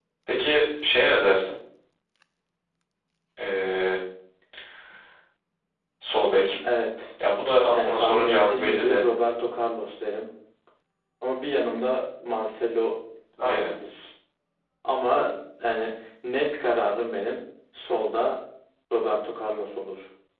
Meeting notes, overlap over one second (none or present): present